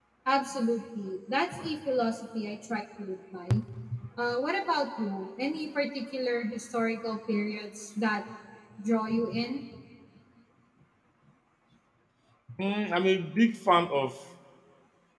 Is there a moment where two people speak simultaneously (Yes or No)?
No